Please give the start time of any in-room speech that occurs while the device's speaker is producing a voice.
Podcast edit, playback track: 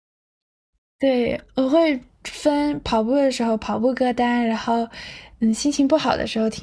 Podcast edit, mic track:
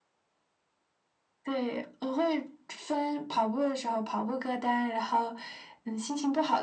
none

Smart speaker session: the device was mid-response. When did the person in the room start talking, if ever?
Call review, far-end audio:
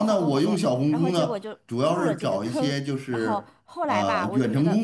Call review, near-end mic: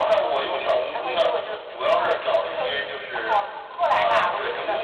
none

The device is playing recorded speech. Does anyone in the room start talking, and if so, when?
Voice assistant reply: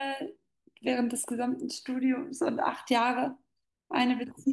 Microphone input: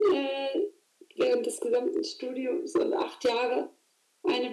none

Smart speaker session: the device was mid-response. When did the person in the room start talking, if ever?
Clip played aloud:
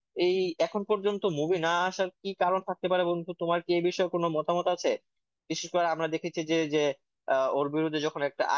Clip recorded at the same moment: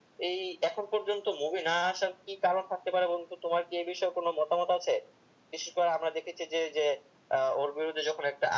none

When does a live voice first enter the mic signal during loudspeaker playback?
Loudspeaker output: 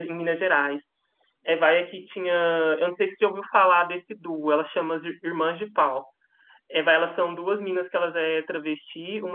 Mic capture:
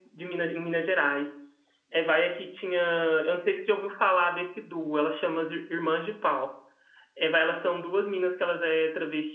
none

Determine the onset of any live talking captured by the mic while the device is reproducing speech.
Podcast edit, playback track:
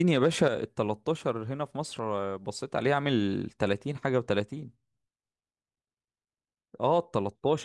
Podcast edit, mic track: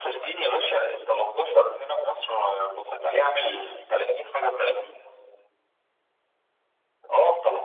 none

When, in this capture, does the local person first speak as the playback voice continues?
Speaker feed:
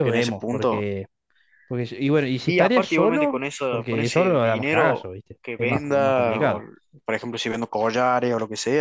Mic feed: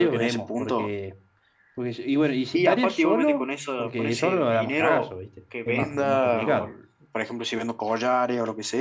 none

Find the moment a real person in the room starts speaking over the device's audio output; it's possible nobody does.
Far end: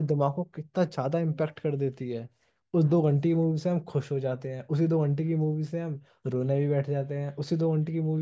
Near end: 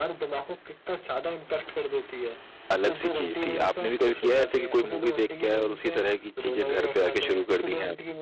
3 s

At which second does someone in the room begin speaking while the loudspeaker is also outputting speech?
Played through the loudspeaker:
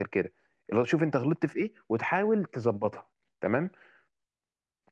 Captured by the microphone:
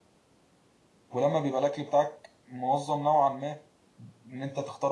1 s

